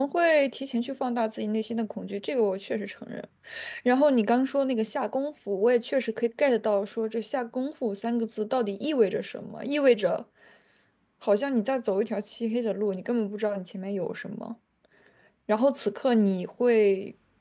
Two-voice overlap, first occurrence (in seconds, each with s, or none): none